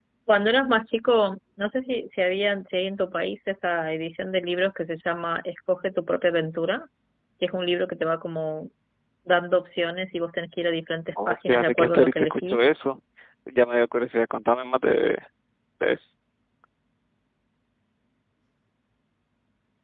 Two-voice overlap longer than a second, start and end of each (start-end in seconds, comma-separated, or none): 11.3-12.7